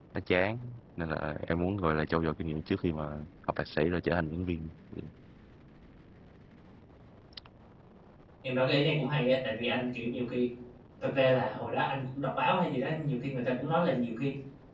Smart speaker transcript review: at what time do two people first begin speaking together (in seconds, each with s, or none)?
none